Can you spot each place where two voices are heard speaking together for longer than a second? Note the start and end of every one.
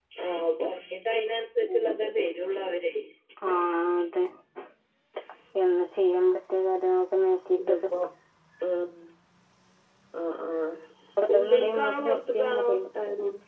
11.3-12.9

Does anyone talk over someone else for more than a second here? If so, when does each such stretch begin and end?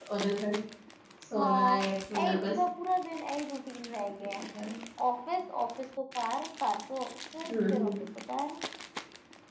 none

